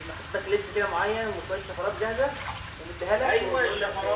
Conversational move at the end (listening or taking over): taking over